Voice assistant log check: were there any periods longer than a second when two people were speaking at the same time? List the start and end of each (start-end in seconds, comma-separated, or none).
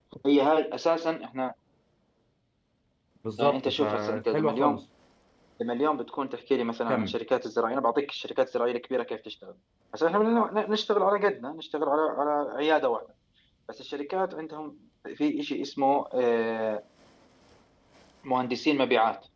3.4-4.8